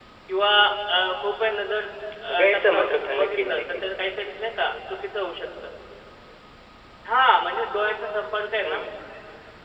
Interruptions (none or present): present